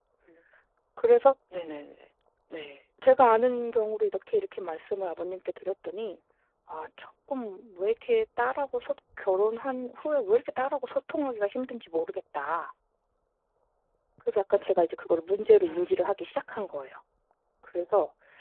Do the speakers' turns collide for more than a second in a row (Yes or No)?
No